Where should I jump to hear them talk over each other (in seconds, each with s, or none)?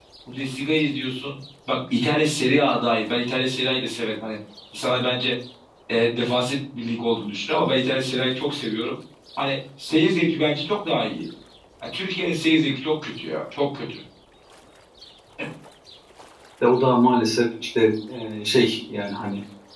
none